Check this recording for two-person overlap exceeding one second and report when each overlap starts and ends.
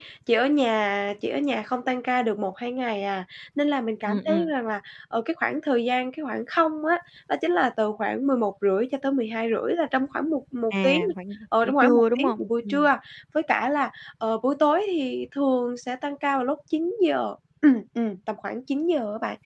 11.6-12.9

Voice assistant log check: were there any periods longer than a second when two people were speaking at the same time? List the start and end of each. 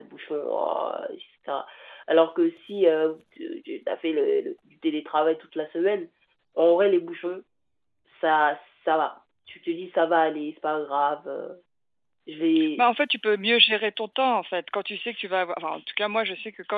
none

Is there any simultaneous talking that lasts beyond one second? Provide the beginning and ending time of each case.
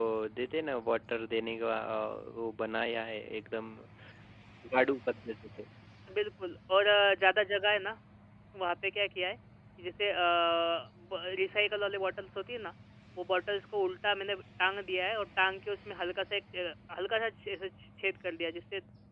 none

